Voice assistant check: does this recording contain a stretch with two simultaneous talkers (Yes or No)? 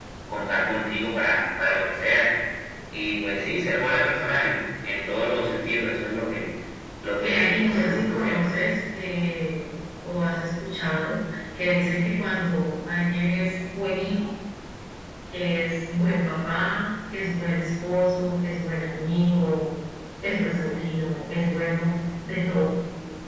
Yes